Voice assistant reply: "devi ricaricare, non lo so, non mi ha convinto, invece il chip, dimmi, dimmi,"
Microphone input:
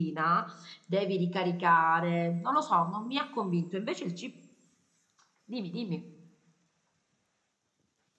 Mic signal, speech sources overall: echo only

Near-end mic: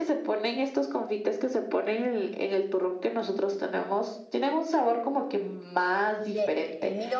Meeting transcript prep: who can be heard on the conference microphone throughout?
both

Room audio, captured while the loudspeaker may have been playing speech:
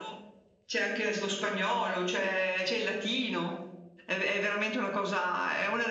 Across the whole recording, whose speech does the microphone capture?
echo only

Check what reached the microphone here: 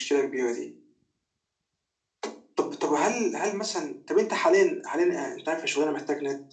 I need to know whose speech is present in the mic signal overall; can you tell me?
echo only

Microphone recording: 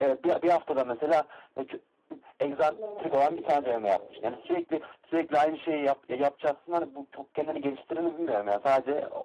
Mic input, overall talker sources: both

